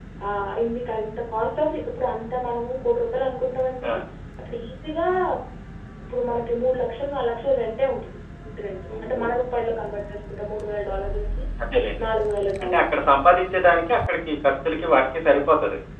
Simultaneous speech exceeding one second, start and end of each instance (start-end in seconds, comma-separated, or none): none